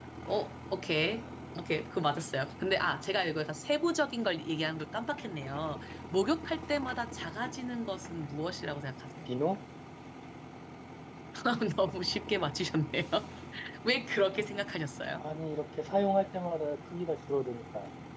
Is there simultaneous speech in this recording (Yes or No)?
No